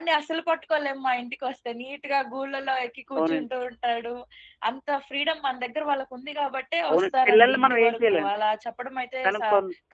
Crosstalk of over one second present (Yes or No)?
Yes